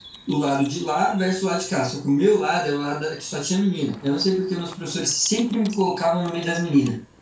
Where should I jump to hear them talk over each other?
none

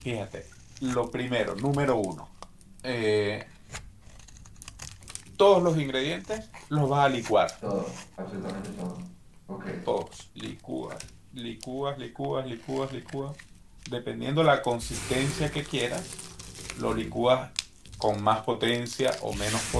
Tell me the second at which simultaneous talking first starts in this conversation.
none

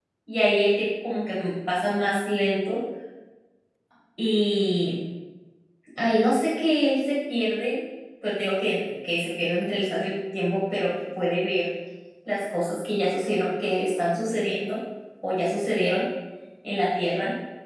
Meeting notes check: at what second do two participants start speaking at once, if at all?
none

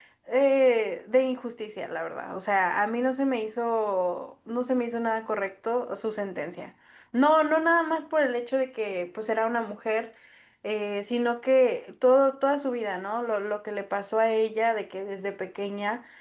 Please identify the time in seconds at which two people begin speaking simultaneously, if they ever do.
none

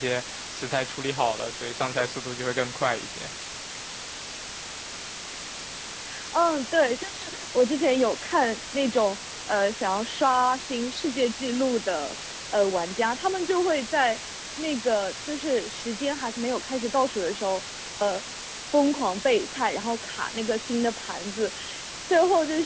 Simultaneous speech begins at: none

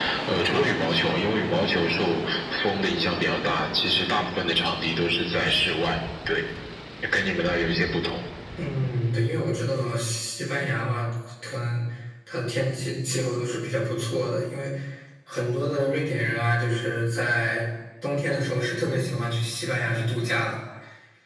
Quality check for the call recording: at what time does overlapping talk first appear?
none

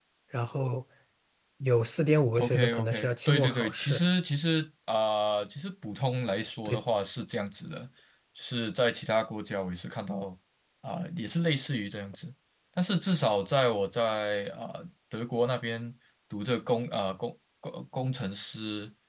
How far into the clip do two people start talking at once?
2 s

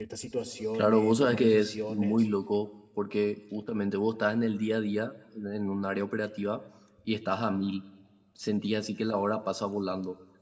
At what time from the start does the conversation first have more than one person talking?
1 s

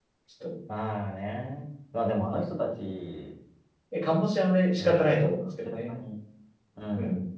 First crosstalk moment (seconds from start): 5 s

